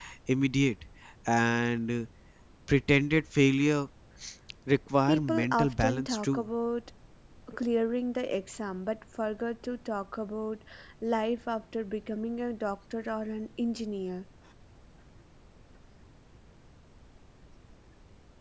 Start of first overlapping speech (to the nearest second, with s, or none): 5 s